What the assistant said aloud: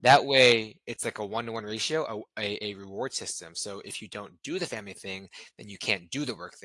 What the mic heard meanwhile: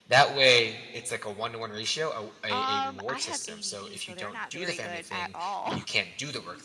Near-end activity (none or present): present